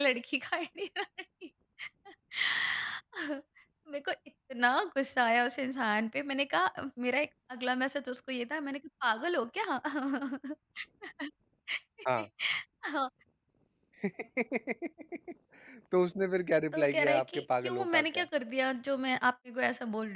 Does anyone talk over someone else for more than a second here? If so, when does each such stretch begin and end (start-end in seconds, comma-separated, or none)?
16.7-18.2